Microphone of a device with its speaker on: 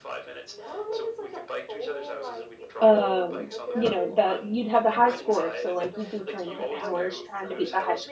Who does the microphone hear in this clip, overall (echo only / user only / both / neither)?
both